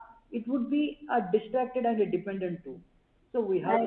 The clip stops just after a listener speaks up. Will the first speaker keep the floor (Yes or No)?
Yes